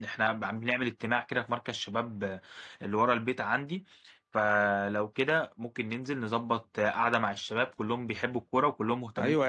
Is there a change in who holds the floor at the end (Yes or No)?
Yes